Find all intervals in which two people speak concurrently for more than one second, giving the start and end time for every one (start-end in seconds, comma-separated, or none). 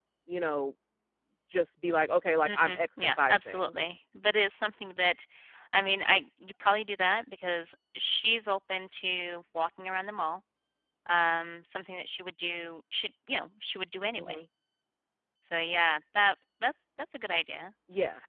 2.4-3.7